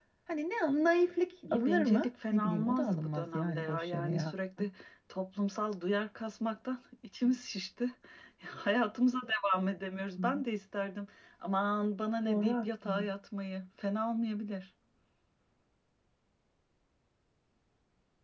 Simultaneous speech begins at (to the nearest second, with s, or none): 2 s